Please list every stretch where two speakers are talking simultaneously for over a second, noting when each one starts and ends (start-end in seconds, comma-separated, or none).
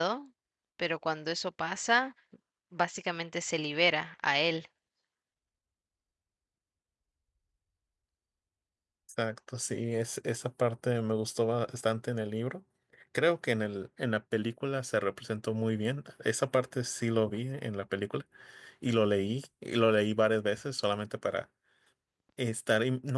none